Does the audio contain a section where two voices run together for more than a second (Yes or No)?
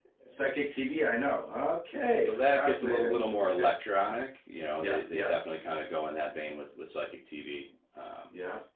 Yes